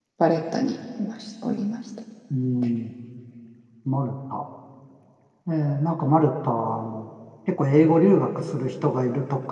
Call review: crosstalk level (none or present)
none